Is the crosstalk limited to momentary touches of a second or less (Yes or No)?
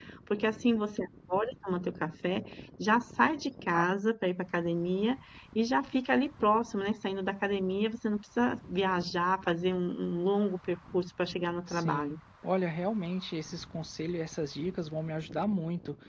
Yes